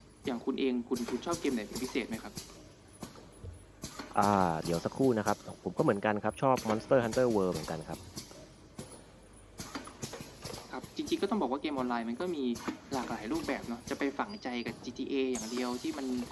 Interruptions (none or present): none